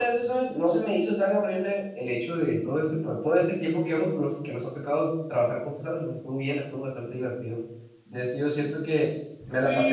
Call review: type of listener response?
listening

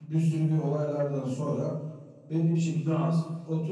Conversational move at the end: listening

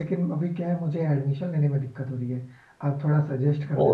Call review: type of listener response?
listening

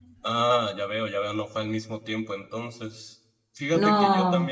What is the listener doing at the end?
listening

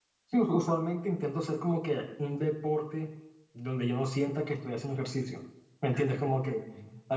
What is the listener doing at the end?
listening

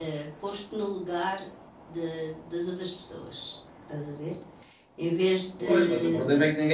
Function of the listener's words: taking over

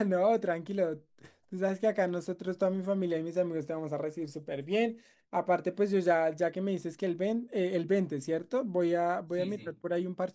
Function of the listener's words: listening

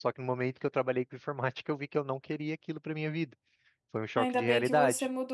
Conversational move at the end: taking over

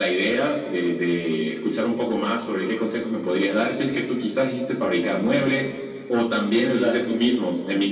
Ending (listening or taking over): listening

